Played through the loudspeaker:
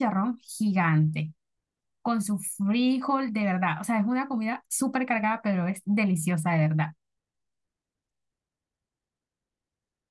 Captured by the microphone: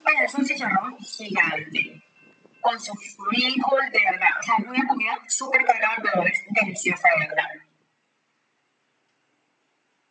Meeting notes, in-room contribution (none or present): none